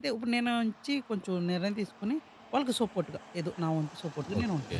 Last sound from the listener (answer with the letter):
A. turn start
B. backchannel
A